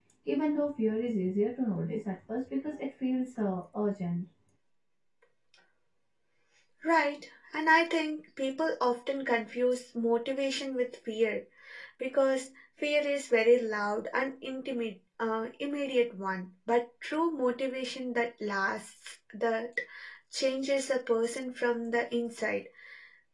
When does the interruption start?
none

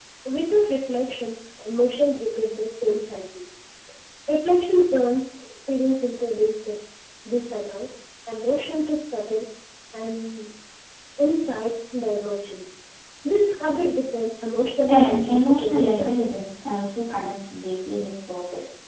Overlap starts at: 14.9 s

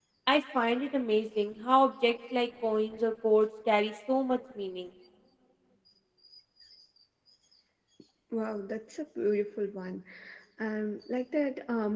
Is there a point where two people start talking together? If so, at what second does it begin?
none

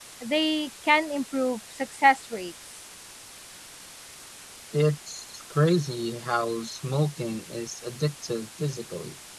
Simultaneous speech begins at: none

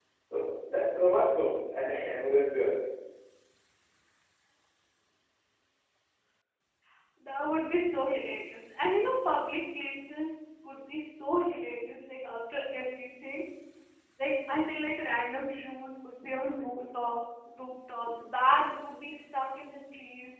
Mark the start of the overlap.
none

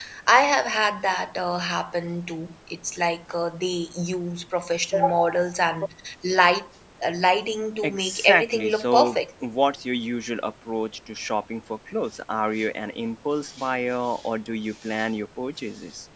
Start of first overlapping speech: 7.8 s

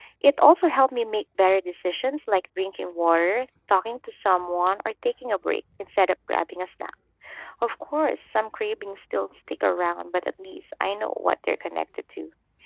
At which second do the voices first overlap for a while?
none

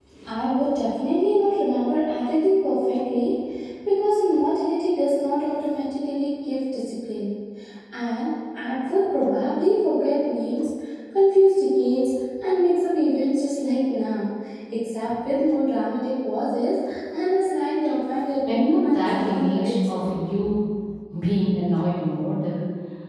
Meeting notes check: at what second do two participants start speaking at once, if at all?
18.5 s

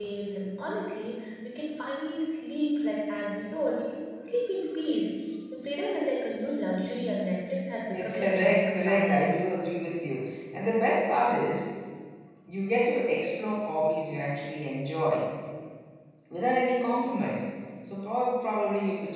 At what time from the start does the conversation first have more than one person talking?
7.9 s

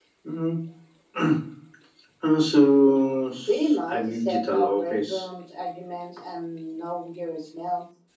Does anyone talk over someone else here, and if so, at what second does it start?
3.5 s

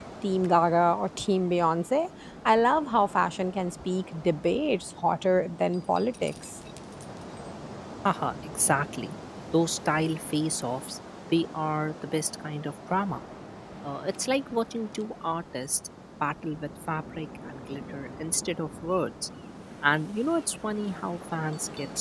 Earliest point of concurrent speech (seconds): none

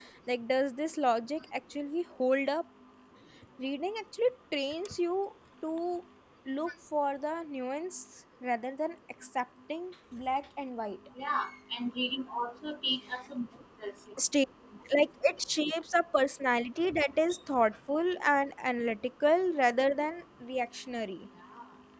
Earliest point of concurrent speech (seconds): none

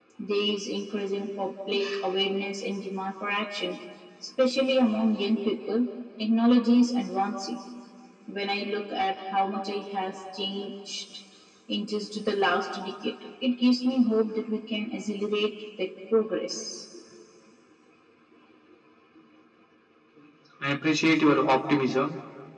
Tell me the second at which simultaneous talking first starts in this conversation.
none

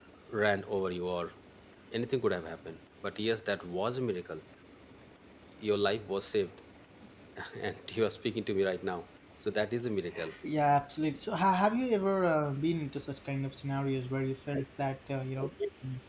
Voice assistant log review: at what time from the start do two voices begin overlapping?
none

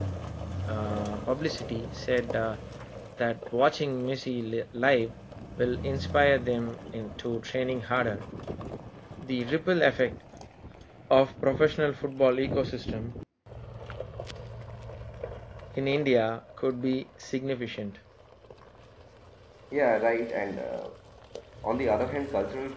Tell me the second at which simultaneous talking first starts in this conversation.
none

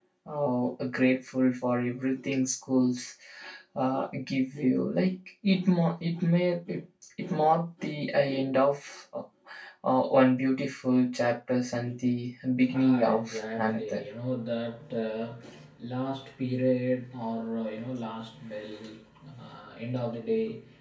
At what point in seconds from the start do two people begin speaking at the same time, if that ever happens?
12.6 s

